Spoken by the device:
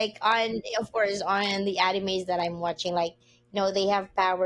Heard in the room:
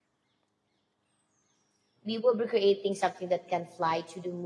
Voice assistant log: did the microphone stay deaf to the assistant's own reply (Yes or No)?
Yes